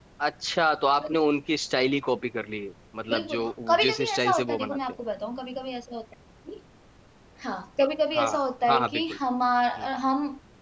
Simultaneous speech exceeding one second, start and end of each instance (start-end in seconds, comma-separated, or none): 3.1-4.8